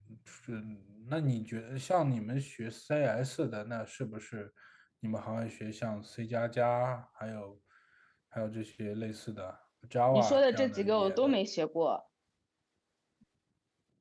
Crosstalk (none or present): present